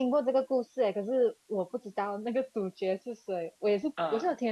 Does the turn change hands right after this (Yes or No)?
No